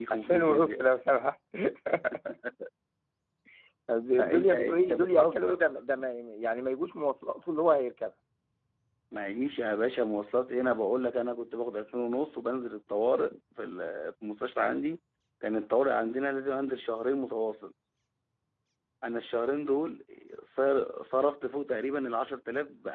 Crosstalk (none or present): present